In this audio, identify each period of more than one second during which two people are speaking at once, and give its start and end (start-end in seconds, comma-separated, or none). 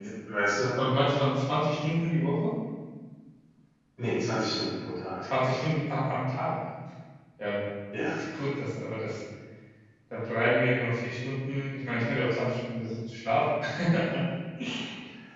none